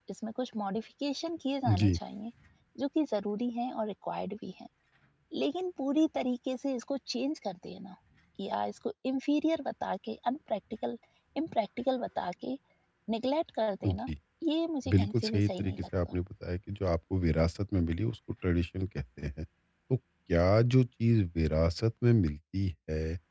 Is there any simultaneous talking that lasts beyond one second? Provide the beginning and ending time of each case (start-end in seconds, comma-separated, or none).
14.9-16.1